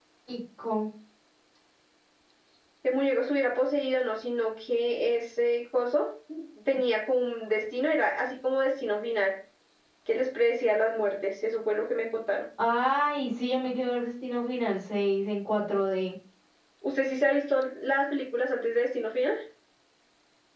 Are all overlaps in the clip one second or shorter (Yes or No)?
Yes